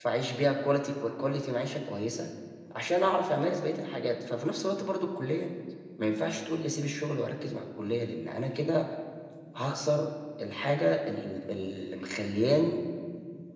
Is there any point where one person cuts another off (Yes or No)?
No